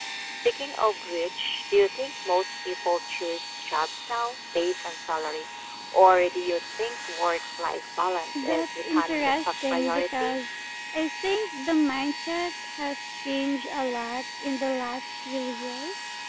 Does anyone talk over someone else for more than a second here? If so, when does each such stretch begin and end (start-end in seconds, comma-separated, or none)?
8.3-10.4